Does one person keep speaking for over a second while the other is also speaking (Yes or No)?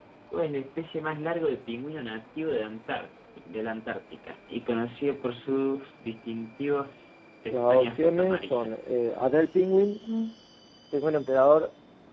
Yes